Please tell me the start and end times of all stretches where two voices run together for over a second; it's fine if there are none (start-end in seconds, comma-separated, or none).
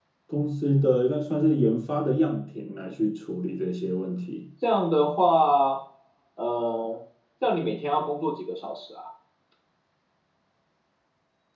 none